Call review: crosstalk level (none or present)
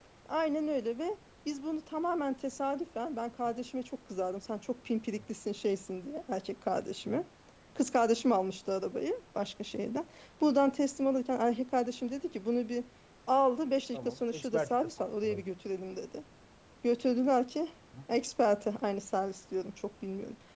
present